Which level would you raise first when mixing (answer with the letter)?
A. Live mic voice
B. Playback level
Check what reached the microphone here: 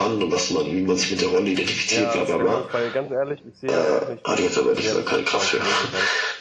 A